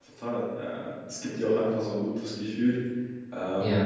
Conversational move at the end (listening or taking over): listening